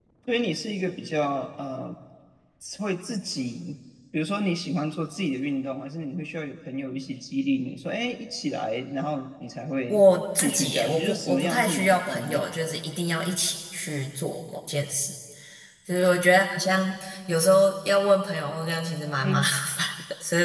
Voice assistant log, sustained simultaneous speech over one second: present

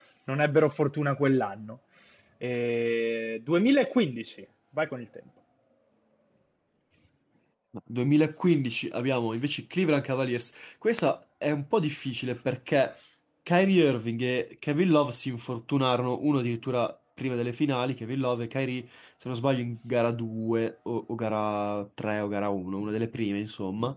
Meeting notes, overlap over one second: none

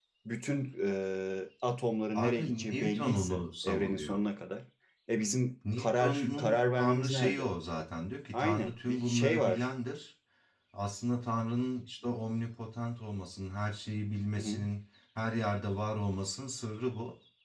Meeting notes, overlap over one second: present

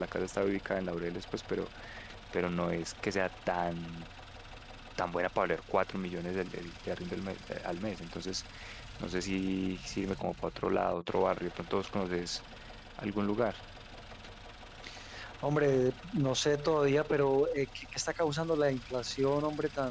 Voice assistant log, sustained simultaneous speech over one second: none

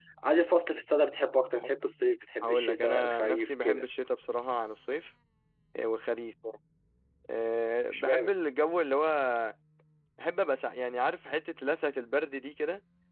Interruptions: present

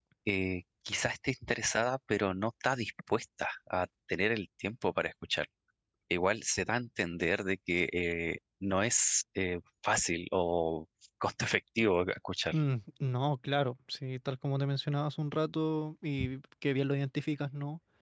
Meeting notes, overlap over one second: none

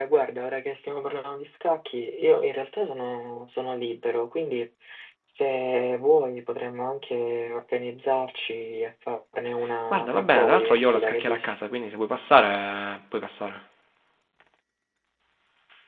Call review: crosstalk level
present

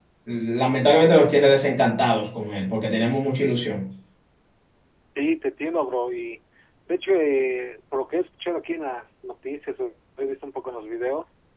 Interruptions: none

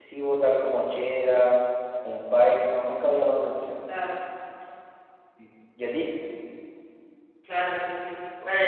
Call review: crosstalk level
none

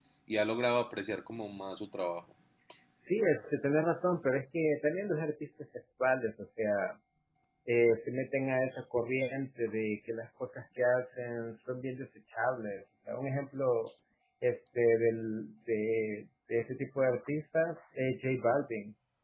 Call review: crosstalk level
none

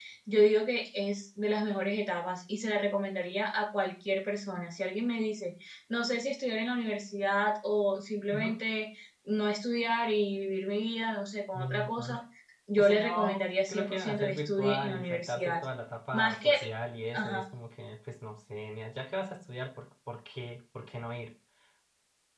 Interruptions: present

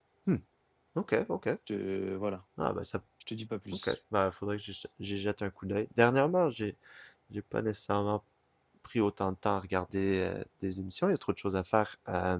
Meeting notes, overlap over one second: none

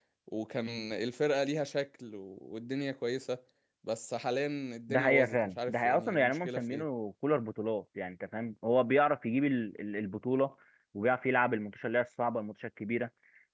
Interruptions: present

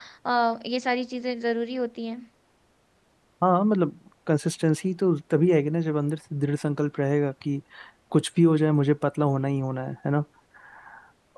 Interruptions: none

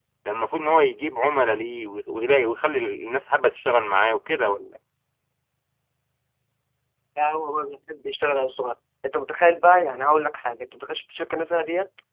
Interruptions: none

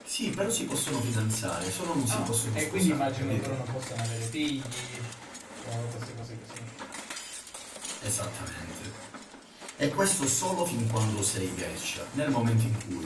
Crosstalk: present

